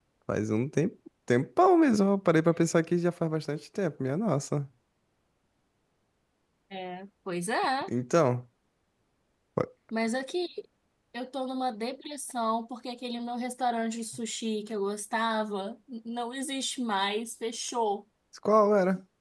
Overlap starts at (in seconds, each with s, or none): none